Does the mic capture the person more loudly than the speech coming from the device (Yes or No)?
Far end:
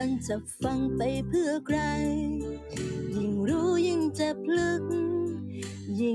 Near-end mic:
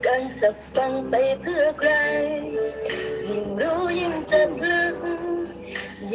No